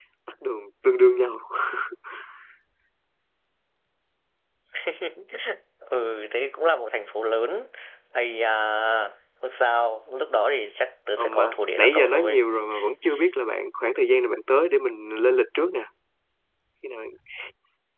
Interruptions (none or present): present